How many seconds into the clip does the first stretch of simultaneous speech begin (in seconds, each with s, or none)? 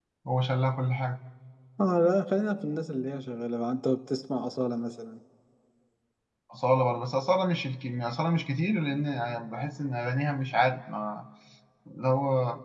none